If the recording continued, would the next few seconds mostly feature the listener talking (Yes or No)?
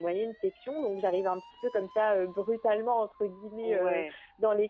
No